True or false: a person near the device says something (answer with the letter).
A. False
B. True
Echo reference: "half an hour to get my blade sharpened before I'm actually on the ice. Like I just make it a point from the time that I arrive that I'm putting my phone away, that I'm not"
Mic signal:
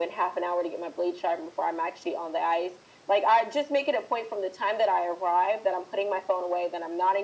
A